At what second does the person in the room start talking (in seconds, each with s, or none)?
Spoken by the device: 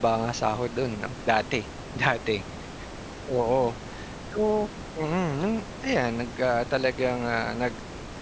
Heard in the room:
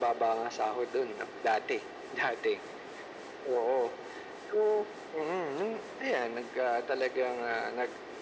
none